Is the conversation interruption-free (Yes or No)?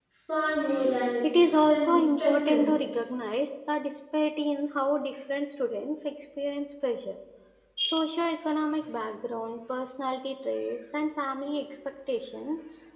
No